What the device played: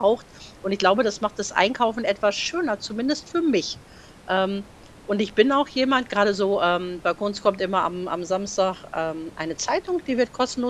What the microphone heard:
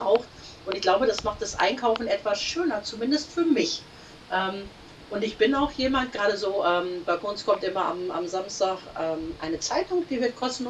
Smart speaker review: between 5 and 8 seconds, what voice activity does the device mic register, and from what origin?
echo only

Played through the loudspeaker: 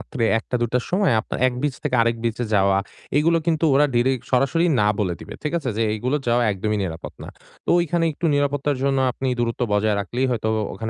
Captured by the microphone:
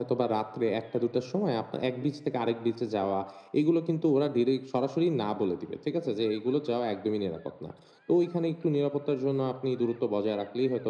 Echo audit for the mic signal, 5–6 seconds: echo only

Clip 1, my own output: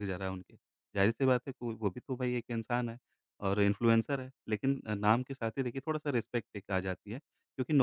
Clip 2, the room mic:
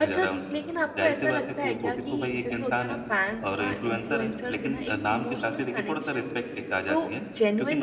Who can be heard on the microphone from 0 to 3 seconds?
both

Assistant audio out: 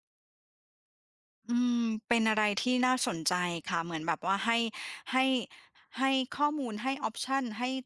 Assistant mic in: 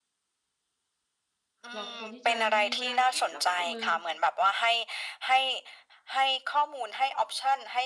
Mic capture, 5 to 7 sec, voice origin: echo only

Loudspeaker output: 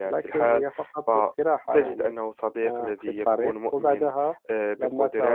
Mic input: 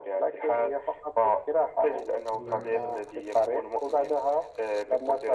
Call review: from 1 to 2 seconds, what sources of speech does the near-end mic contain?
echo only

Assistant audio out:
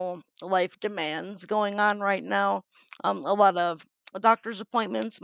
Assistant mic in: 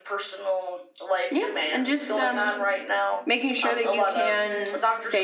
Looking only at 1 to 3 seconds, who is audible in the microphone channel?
both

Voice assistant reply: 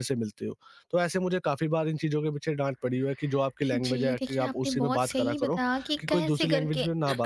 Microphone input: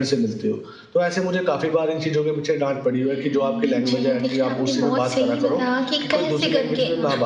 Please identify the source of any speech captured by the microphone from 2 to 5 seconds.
both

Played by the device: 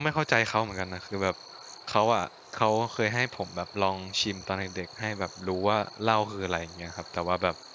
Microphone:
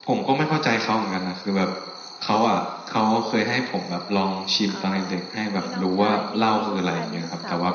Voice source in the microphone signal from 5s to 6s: both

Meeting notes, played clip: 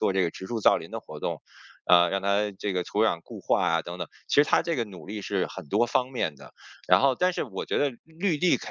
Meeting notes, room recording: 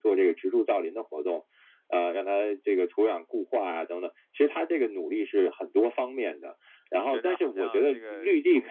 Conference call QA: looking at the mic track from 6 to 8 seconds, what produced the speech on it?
both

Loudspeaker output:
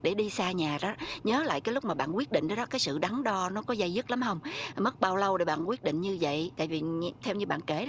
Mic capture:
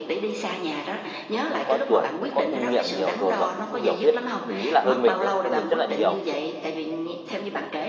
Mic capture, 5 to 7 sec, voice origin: both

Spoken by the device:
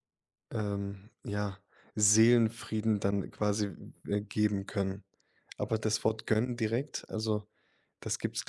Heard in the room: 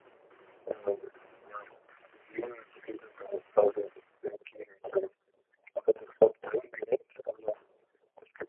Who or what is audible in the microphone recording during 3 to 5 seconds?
echo only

